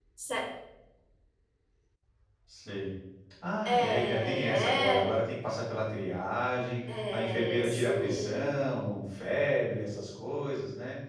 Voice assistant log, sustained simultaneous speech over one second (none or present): present